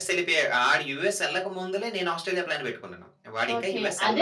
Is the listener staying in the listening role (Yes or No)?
No